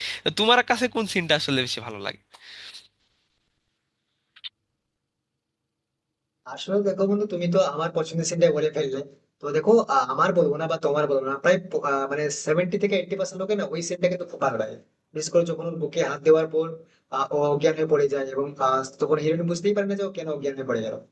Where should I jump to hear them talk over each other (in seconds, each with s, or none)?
none